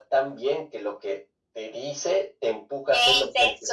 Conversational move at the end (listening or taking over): taking over